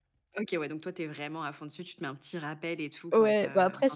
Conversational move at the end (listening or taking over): taking over